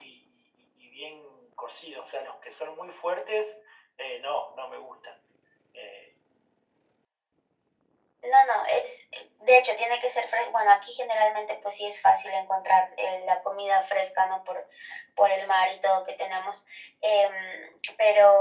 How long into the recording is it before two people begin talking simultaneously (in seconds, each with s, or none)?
none